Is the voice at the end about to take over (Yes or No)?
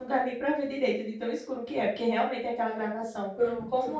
No